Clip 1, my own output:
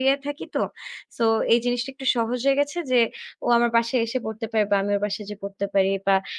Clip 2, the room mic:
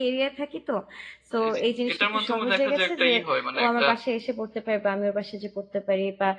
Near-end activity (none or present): present